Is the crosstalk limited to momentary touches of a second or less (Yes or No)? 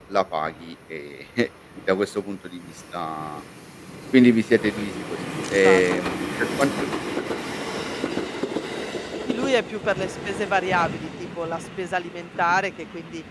Yes